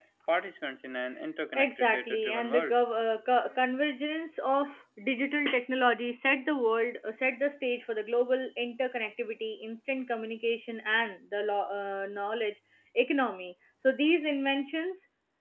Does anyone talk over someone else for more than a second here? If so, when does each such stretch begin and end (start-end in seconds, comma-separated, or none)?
1.6-2.8